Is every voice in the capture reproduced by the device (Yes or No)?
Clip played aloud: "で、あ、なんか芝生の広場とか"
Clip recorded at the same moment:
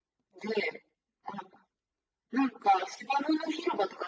Yes